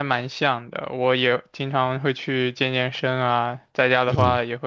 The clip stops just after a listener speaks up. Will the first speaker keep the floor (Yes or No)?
Yes